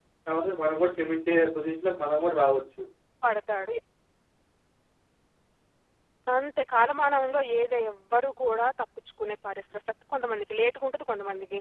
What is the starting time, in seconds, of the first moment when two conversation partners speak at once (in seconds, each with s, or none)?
none